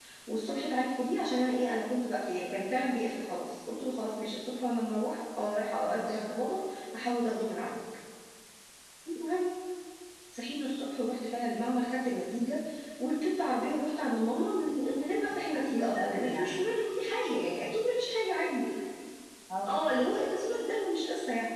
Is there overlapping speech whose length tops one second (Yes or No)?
Yes